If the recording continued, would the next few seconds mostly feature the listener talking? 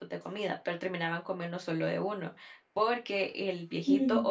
No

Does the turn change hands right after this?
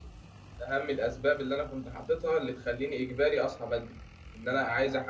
No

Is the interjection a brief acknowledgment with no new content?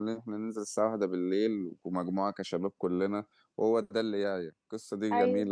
Yes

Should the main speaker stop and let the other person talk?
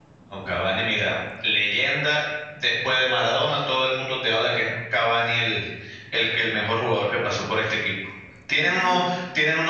No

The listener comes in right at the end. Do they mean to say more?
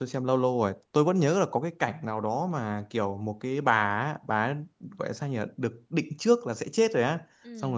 No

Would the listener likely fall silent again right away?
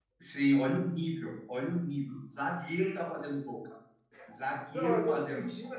No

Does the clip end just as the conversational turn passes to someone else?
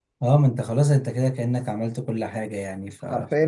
Yes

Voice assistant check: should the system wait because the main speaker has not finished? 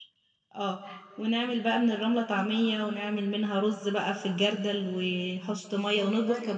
Yes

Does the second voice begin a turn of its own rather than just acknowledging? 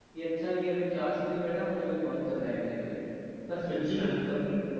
No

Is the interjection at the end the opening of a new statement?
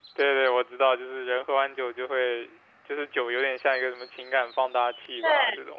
Yes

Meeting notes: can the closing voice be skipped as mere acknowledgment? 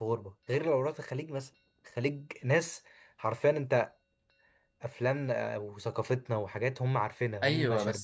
No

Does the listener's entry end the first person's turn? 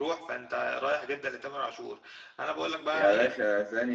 Yes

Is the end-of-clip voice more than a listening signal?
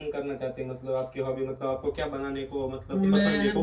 Yes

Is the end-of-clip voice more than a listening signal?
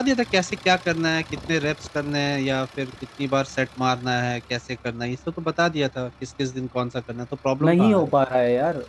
Yes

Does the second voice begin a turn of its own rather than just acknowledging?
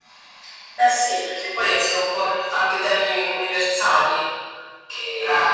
No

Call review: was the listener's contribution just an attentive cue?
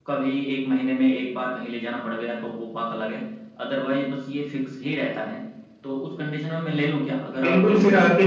No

